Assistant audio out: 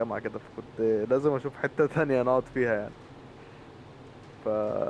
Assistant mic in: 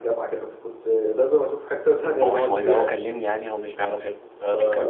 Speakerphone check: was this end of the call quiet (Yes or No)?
No